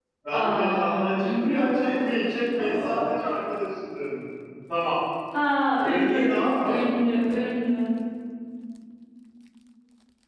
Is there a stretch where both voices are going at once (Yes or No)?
Yes